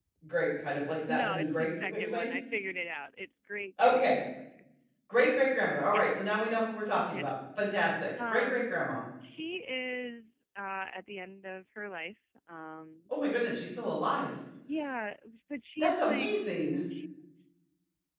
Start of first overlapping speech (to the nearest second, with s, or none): 1 s